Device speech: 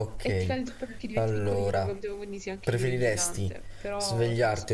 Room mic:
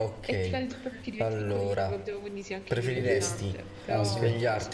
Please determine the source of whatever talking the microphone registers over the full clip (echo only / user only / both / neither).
both